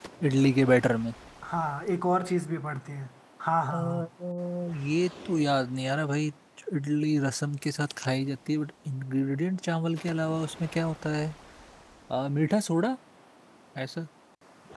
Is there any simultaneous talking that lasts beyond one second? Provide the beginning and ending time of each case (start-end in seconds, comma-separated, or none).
none